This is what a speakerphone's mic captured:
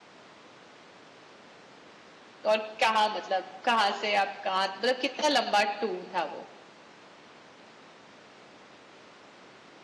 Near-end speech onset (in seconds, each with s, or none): 2.5 s